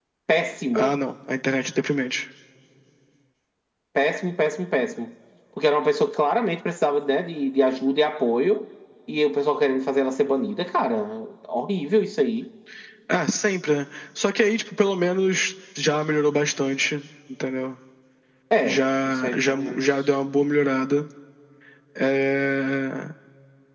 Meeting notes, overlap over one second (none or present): present